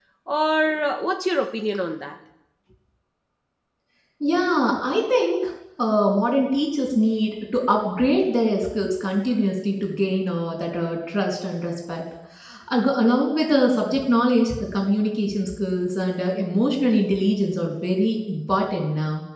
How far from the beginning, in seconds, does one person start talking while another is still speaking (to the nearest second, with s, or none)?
none